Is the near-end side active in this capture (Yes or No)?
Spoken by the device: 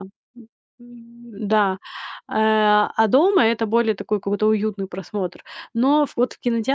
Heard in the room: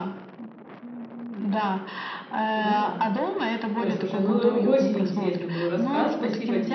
Yes